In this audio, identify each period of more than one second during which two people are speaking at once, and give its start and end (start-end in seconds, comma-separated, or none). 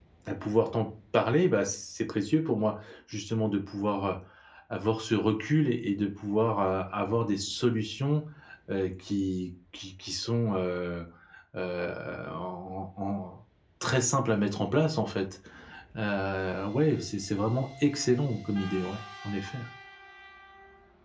none